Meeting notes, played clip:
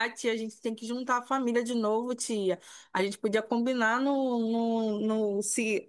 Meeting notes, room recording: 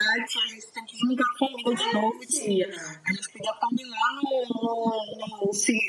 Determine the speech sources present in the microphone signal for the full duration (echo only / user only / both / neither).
both